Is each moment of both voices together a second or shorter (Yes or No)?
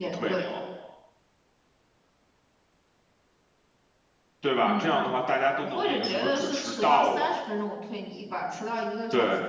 No